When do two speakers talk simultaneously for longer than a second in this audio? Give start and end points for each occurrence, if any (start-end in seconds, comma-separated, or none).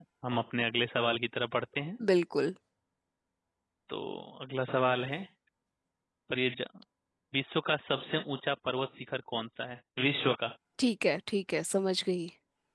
none